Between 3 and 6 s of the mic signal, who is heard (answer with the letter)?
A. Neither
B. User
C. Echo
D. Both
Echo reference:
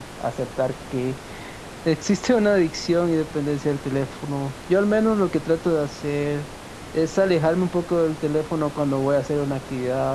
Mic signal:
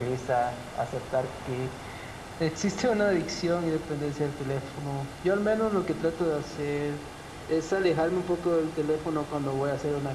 C